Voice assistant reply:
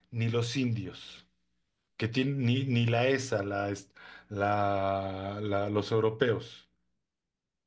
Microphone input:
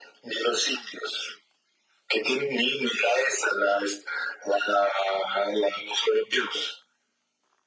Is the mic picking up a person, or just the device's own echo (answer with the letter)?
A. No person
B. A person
A